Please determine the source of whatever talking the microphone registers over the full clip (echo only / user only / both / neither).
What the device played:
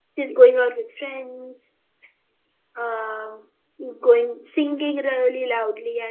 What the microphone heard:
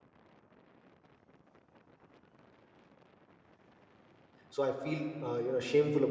user only